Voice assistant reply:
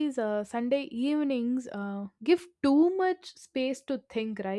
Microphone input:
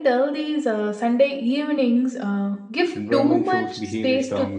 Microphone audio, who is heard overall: both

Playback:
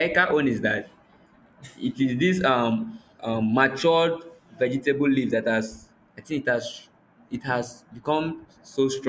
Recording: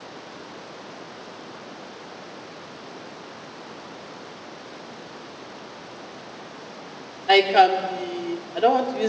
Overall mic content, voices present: user only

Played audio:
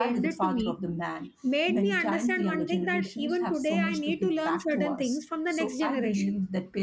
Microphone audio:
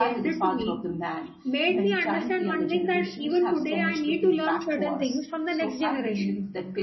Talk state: echo only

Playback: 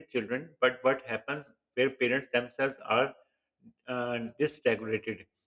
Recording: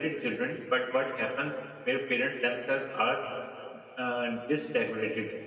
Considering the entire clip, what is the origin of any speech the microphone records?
echo only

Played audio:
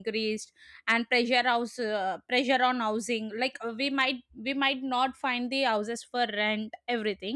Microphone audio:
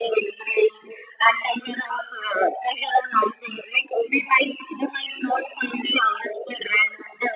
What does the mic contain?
echo only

